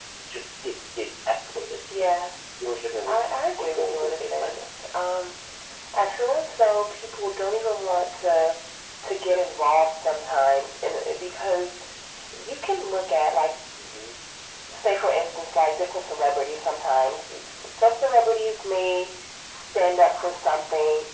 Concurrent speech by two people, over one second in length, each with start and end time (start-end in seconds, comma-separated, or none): 3.0-4.6